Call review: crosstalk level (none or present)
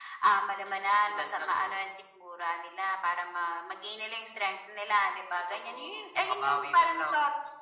present